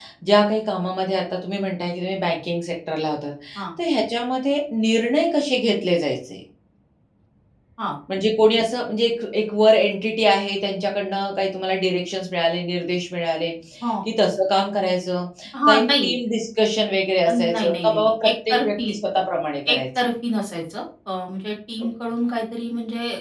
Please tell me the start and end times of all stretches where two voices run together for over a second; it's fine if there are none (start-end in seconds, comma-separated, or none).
17.3-18.9